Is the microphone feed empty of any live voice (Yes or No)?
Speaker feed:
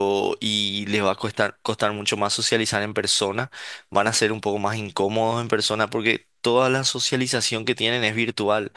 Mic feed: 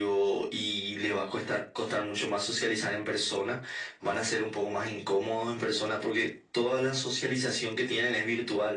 Yes